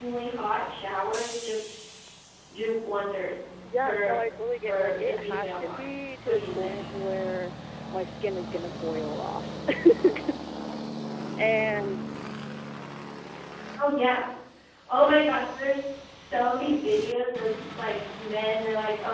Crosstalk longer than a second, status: present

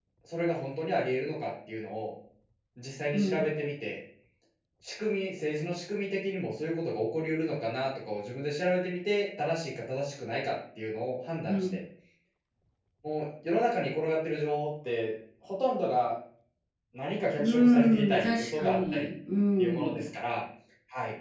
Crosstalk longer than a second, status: present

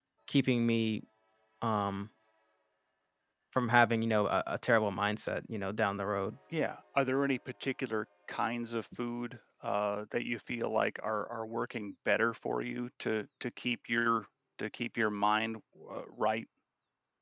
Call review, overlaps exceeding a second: none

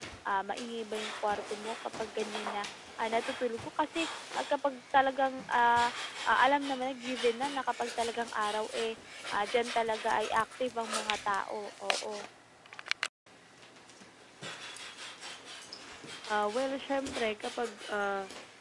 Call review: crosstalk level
none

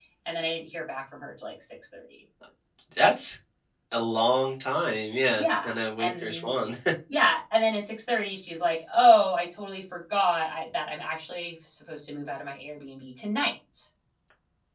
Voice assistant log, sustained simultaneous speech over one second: present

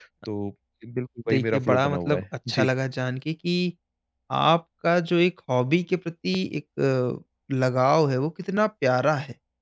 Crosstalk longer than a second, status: present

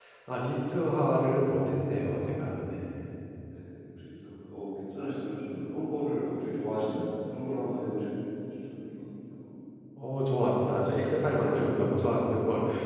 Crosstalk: none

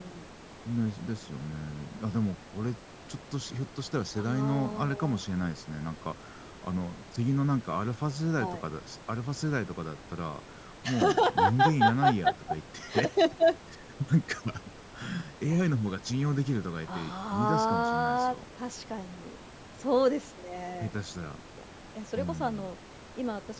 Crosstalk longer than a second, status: present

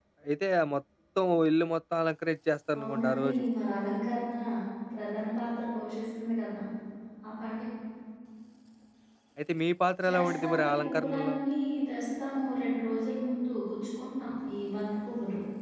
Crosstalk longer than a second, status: present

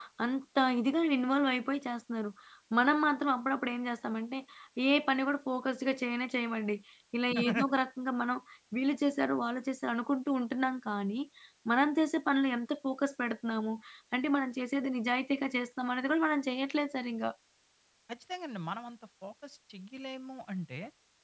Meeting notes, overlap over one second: none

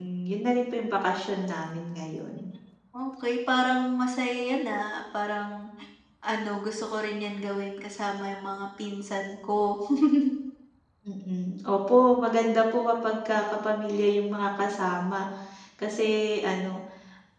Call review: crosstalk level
none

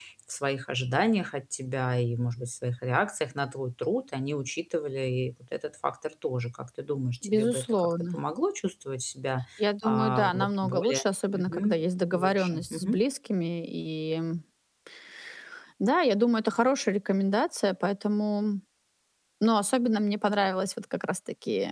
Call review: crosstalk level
present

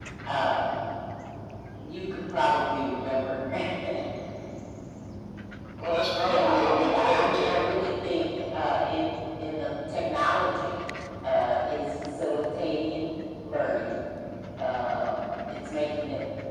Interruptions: present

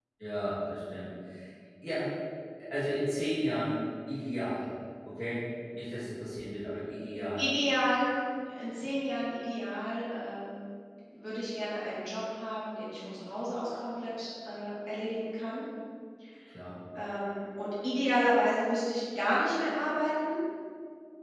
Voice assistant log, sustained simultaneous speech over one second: none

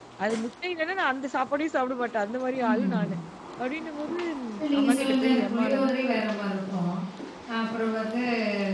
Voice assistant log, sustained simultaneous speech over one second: present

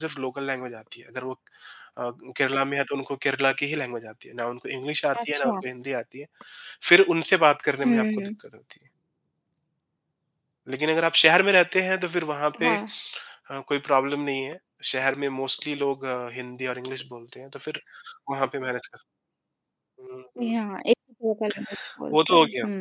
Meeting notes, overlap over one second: none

